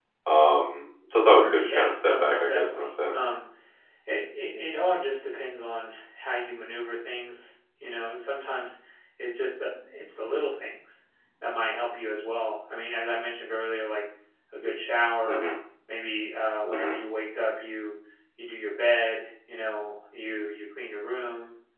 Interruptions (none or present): present